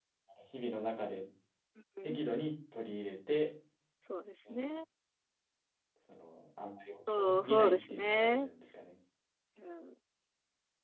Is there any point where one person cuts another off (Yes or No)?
Yes